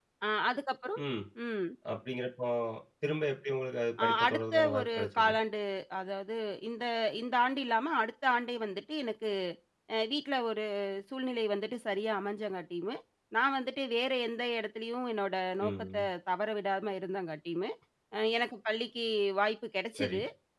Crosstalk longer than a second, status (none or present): present